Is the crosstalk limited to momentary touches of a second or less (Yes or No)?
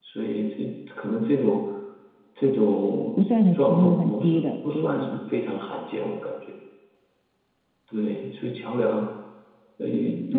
No